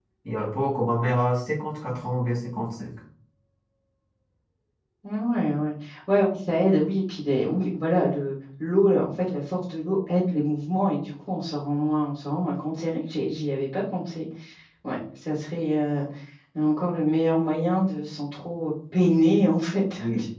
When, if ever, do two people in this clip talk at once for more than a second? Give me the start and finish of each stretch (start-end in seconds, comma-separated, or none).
none